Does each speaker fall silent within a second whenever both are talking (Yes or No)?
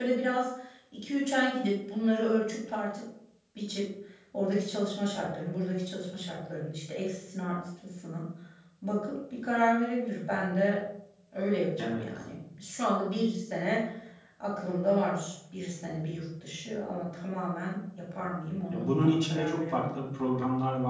No